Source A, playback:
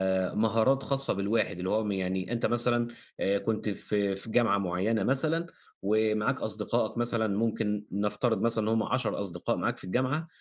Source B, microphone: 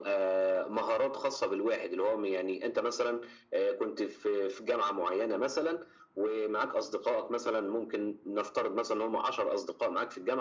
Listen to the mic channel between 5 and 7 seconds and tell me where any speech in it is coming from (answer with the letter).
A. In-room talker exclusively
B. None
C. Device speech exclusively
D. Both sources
C